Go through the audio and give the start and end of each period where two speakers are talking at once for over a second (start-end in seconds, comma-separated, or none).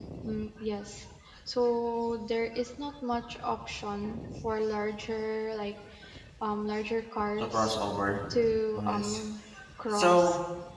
none